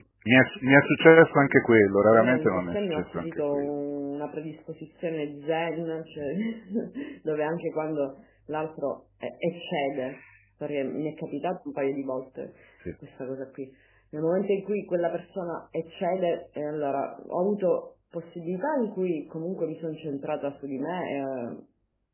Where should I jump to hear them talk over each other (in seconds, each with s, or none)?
2.1 s